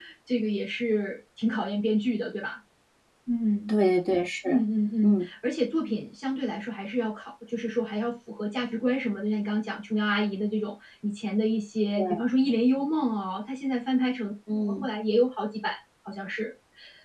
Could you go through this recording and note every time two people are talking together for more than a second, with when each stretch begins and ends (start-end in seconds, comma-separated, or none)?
none